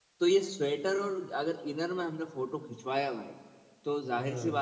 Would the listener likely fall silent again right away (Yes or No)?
Yes